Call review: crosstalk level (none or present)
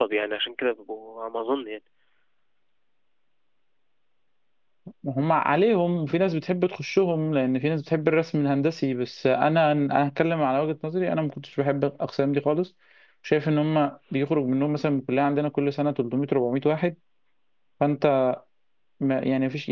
none